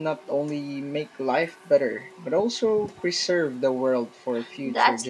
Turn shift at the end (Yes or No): Yes